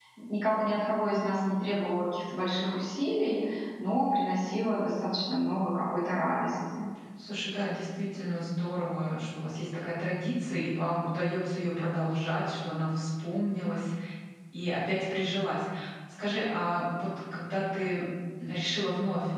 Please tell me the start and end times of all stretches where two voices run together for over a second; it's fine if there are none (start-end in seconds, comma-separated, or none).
none